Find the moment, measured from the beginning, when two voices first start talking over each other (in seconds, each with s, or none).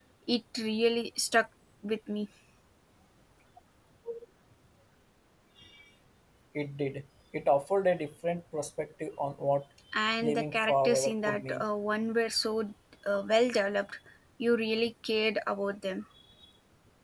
10.2 s